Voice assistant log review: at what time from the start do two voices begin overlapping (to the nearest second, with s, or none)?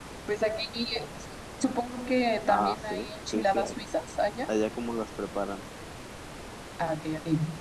2 s